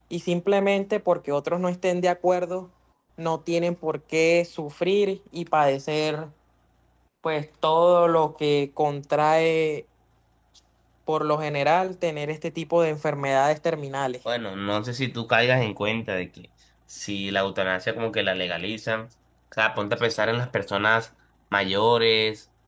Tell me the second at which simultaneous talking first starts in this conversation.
none

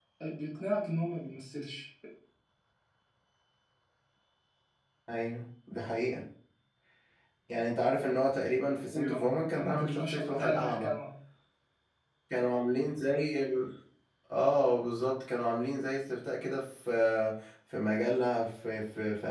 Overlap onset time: 9 s

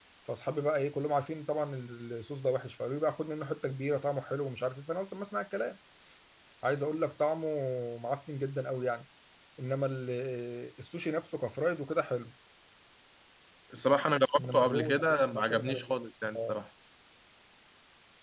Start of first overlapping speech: 14 s

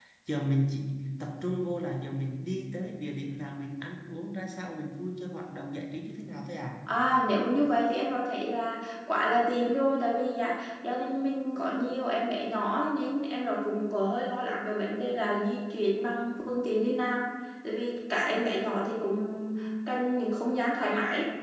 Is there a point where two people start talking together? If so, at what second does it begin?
none

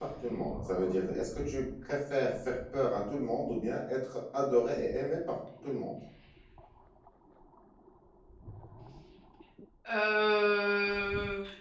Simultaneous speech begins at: none

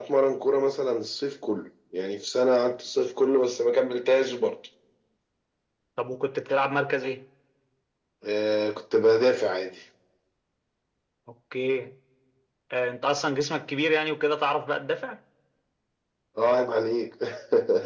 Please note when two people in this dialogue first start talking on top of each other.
none

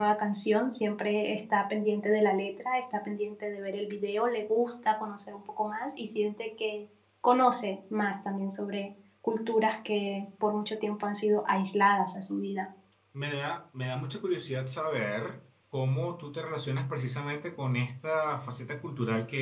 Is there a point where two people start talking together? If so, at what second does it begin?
none

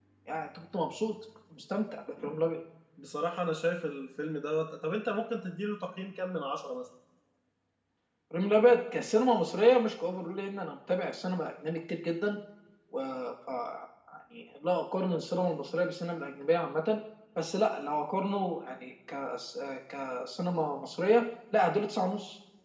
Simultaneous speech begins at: none

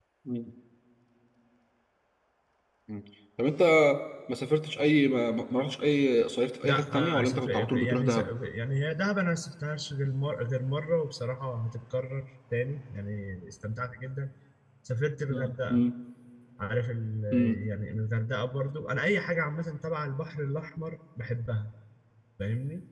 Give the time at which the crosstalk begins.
7 s

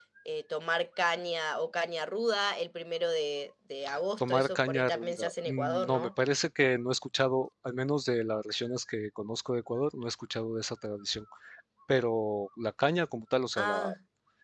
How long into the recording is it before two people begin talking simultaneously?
4 s

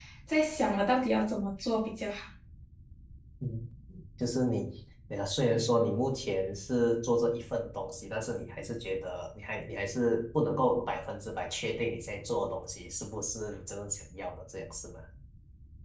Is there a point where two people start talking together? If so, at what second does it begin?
none

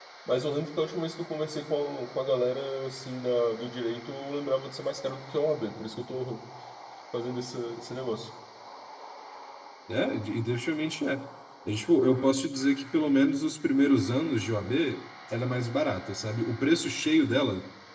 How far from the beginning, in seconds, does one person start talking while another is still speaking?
none

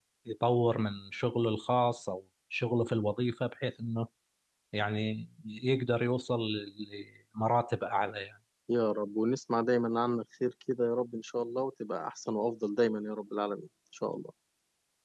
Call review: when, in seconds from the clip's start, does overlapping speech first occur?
none

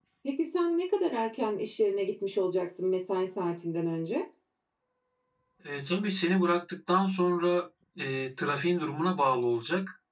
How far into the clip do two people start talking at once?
none

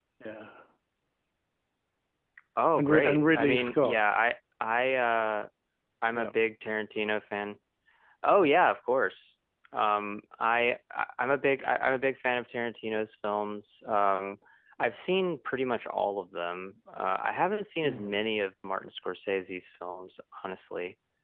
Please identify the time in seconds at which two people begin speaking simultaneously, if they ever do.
3 s

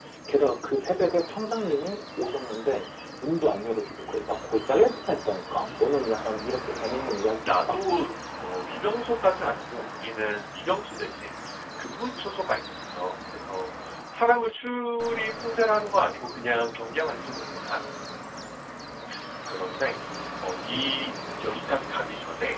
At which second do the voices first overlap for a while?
6 s

